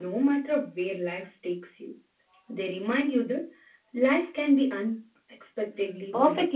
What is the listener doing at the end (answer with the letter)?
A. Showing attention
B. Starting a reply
B